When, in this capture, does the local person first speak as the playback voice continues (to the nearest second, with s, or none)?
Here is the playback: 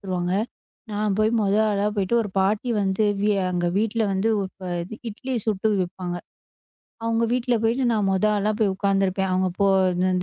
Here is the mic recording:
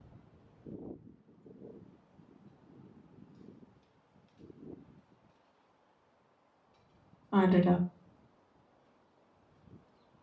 7 s